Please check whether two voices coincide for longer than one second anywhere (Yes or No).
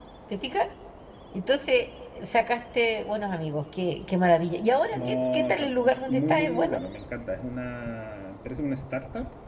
Yes